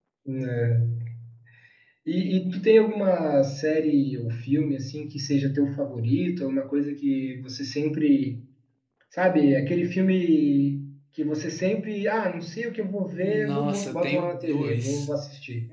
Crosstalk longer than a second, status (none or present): present